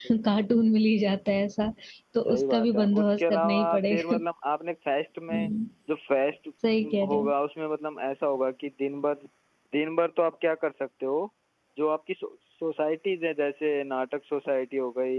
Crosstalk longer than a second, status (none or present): present